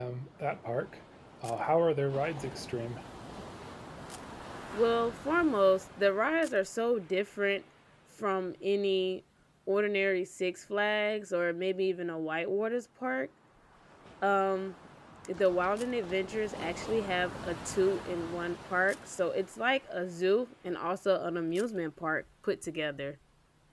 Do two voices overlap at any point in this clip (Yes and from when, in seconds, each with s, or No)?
No